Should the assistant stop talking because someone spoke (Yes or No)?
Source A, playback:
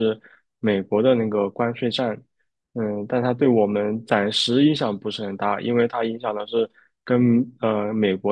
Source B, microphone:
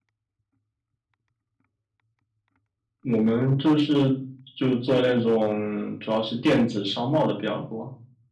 Yes